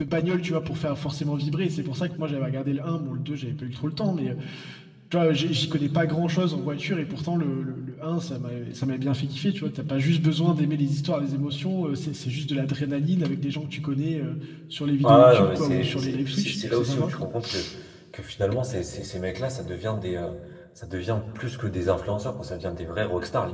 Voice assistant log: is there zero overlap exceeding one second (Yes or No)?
No